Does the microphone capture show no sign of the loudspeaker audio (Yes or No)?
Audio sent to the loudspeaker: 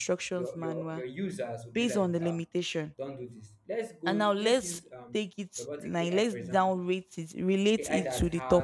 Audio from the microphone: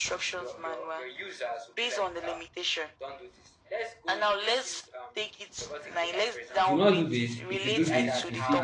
No